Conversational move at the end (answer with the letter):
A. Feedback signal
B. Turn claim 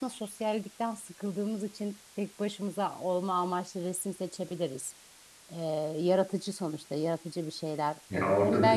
B